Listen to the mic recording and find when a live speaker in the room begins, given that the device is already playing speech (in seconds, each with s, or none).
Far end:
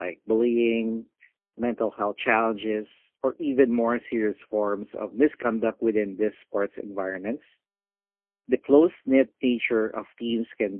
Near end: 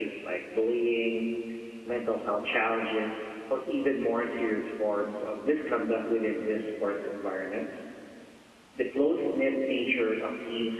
none